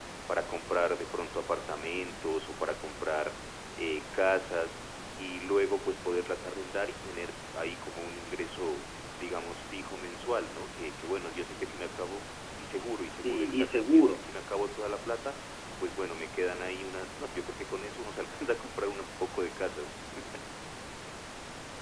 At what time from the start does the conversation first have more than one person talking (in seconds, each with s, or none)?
12.7 s